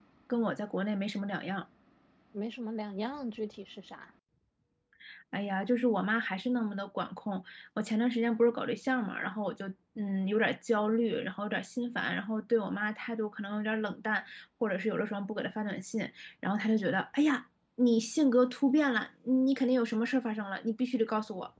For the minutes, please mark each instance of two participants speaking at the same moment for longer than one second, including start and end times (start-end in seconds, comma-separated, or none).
none